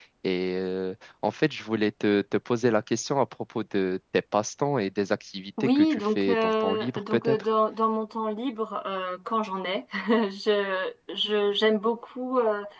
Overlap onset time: 5.6 s

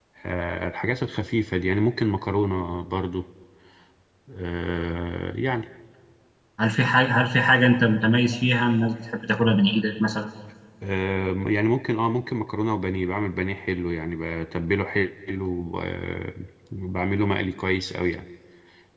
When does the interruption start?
none

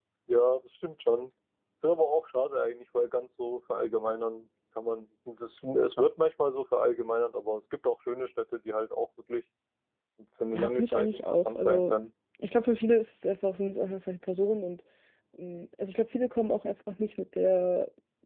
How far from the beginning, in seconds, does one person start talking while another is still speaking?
10.5 s

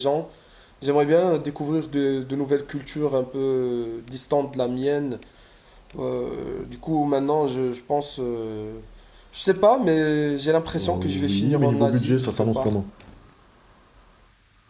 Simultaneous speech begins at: 10.7 s

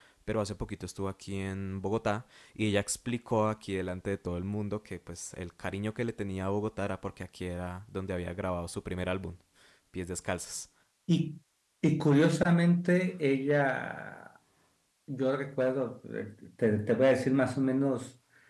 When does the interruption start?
none

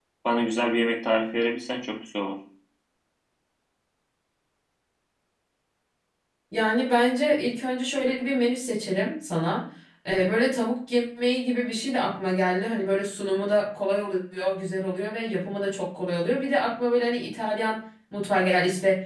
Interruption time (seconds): none

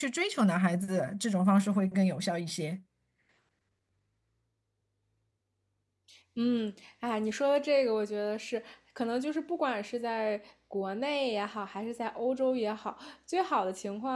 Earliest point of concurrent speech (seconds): none

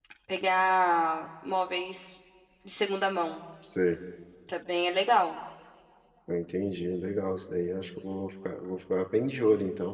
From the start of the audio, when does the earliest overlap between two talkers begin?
none

